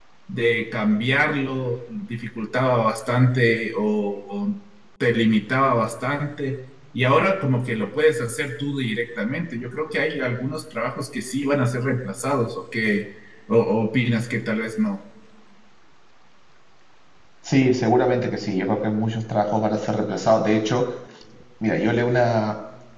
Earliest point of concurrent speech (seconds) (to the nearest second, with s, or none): none